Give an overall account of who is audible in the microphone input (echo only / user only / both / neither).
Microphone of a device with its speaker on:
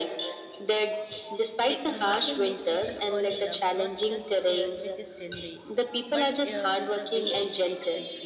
both